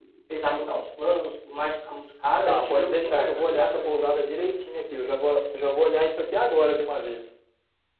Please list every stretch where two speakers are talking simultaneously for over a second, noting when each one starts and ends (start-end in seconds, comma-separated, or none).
2.5-4.0